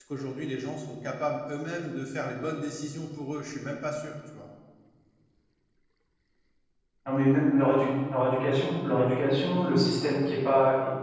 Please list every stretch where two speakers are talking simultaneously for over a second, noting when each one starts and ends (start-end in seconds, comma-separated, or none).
none